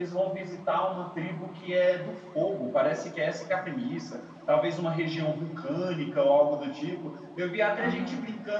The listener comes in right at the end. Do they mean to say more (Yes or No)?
No